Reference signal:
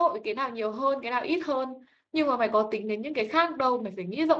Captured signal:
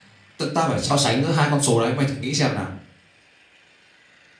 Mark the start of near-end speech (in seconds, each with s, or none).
0.4 s